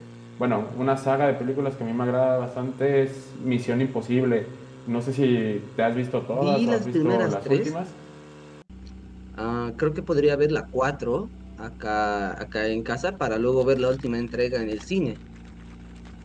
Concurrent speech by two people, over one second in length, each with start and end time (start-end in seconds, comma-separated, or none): 6.3-7.7